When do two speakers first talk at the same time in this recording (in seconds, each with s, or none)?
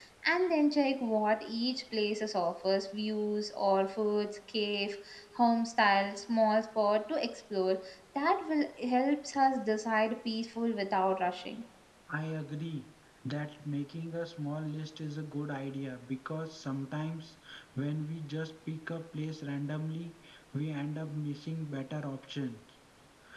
none